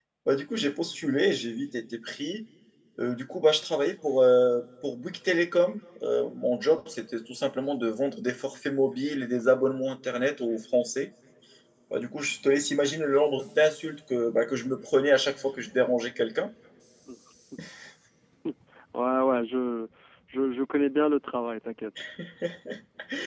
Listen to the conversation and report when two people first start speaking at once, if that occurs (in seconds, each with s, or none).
none